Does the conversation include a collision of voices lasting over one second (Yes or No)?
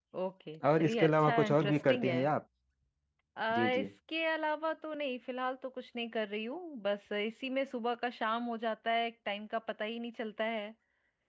Yes